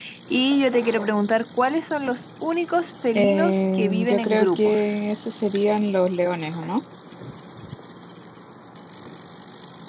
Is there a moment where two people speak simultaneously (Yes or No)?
Yes